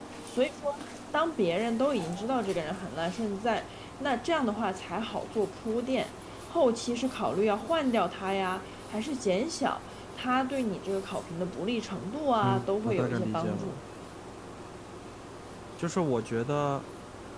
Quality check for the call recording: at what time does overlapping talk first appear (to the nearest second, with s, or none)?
12 s